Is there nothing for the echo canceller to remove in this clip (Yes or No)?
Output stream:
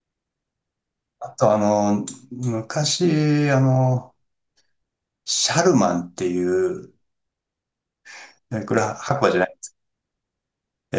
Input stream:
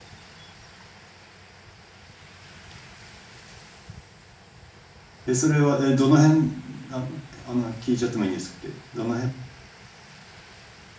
Yes